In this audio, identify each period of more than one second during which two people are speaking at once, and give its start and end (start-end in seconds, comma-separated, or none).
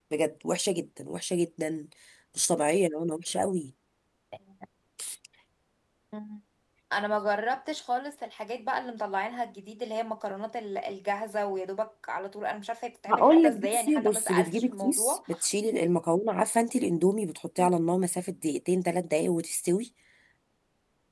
13.1-15.2